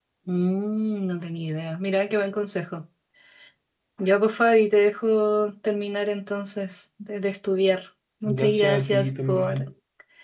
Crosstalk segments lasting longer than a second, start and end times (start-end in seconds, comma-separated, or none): 8.2-9.7